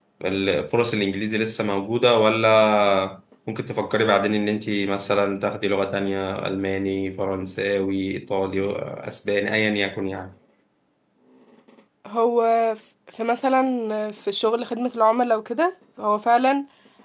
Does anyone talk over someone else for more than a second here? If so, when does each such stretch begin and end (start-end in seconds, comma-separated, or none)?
none